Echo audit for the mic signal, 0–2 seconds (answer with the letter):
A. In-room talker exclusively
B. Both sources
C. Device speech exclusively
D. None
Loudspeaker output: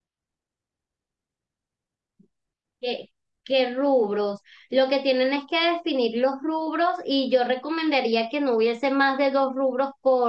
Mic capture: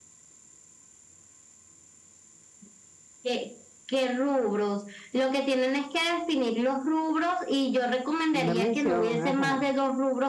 D